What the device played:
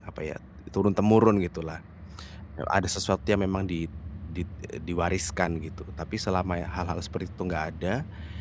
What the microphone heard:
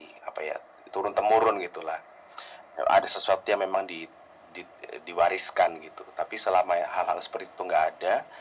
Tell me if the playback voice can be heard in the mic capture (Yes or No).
Yes